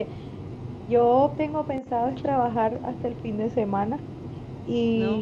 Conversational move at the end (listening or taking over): listening